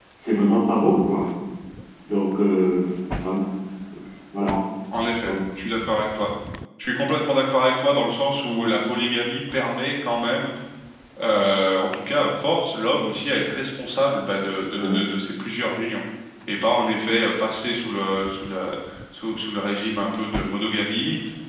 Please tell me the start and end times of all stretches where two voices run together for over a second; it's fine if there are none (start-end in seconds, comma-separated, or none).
none